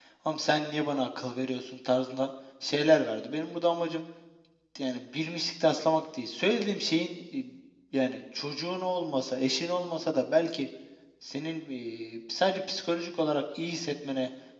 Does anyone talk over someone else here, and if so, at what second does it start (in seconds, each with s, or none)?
none